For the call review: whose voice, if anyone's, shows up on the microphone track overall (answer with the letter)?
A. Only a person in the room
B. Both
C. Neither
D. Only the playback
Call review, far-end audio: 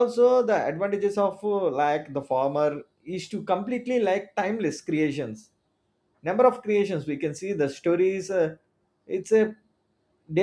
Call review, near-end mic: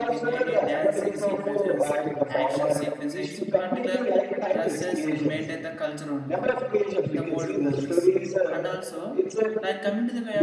B